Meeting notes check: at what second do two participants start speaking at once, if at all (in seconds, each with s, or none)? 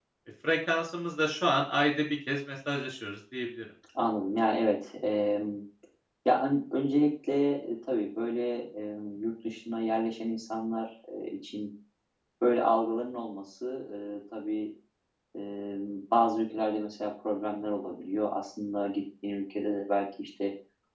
none